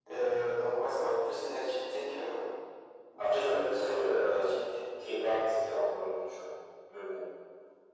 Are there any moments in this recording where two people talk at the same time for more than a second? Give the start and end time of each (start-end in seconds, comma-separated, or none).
3.2-4.6